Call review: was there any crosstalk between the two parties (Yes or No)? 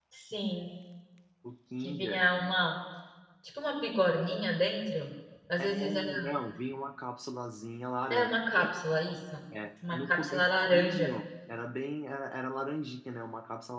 Yes